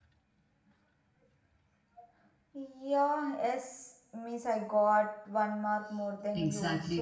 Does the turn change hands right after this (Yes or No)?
Yes